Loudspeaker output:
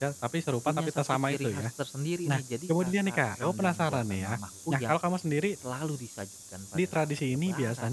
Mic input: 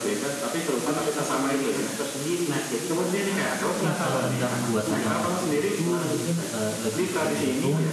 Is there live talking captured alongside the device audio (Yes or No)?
Yes